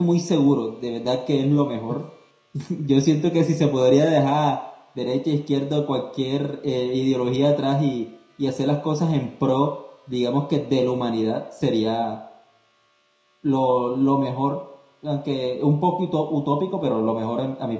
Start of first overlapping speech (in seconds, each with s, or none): none